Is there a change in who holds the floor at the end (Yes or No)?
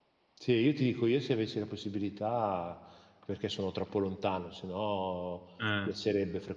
No